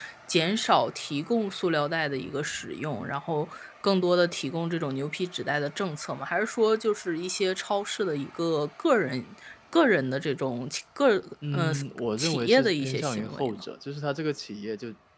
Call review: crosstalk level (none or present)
present